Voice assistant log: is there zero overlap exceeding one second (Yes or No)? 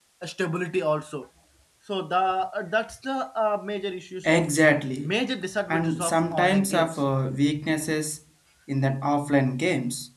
No